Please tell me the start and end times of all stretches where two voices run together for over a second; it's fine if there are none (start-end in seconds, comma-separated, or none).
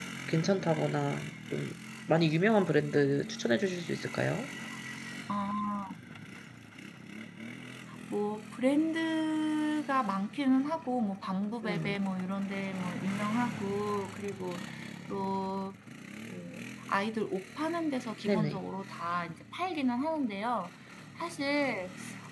none